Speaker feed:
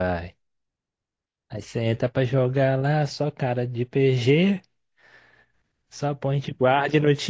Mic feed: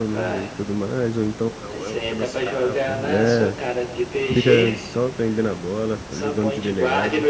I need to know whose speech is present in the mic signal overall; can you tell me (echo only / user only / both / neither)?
both